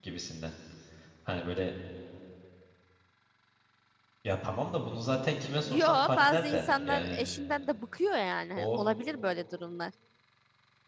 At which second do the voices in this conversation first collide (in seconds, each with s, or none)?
5.6 s